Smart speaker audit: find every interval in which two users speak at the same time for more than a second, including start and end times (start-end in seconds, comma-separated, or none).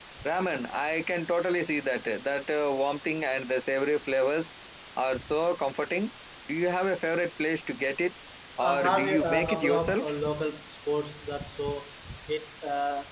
8.6-10.2